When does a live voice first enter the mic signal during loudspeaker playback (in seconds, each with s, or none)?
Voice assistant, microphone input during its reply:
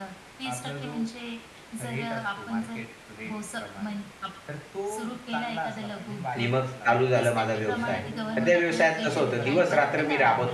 6.3 s